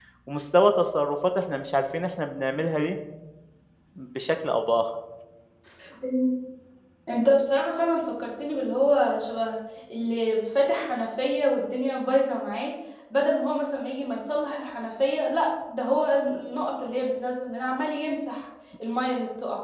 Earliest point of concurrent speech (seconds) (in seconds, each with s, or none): none